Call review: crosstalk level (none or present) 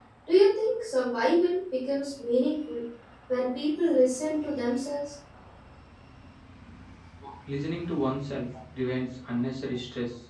none